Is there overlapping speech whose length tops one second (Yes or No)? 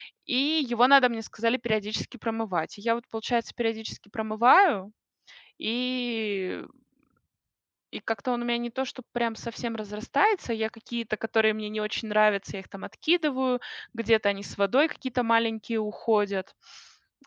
No